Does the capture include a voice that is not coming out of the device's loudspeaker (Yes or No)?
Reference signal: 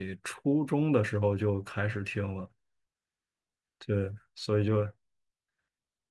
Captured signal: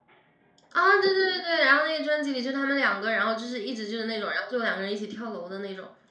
Yes